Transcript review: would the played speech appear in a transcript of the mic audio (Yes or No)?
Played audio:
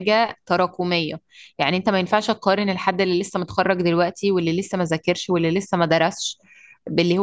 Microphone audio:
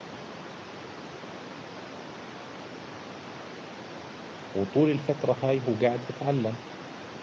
No